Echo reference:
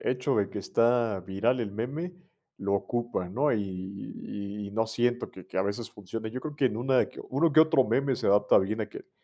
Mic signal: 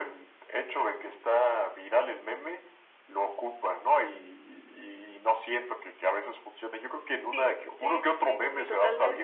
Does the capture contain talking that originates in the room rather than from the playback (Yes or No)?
Yes